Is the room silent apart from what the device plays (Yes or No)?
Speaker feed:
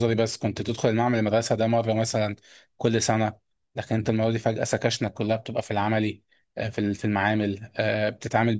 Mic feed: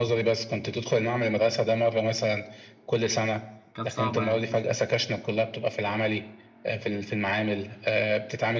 No